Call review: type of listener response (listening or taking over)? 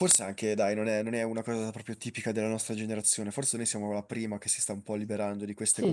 taking over